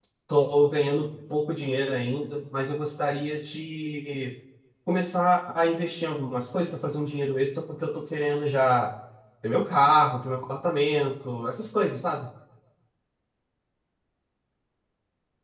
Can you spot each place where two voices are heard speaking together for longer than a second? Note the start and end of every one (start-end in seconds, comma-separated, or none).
none